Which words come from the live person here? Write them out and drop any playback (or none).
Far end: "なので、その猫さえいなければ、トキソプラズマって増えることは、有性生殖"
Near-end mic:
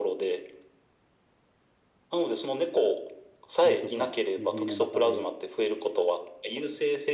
鳥とかネズミの中で、